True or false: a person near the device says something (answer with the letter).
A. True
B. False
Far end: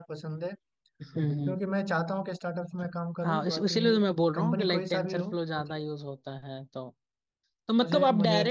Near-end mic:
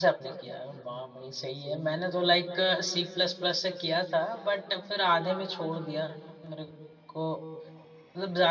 A